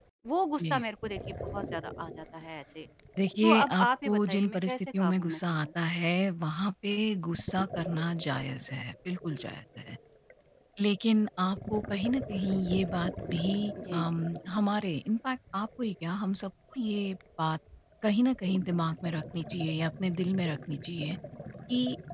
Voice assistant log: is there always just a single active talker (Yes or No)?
No